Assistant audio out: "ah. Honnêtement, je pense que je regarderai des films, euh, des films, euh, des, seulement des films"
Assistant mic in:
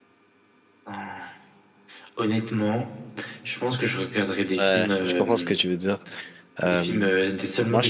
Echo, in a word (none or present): present